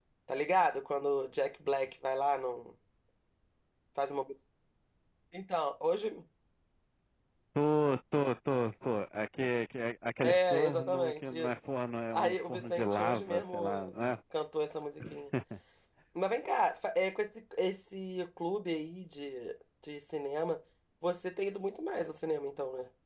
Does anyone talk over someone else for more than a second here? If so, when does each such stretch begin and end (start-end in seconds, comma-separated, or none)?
10.2-11.5, 12.1-13.9